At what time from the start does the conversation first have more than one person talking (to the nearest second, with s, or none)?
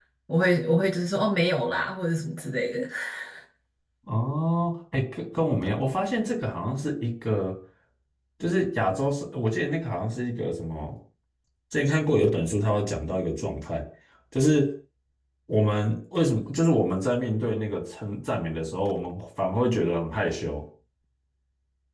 none